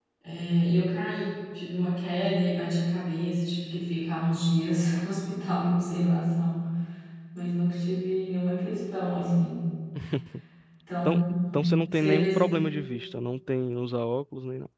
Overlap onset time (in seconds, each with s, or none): 11.1 s